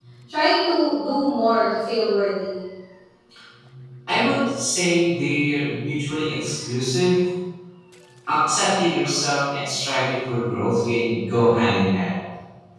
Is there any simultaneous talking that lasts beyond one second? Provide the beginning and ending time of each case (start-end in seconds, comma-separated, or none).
none